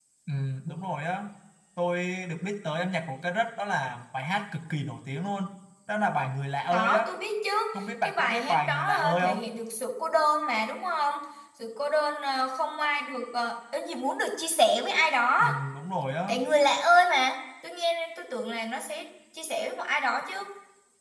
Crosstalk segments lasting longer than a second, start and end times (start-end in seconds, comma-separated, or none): 8.0-9.4